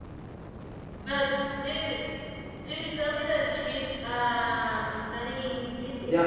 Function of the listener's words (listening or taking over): taking over